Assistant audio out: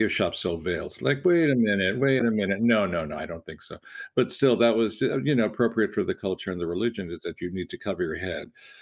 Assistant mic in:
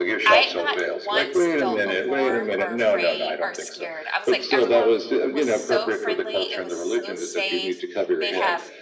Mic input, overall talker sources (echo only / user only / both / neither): both